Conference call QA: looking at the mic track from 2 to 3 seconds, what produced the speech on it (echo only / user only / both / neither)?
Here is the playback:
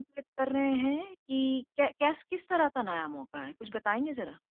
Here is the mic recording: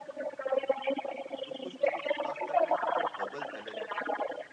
both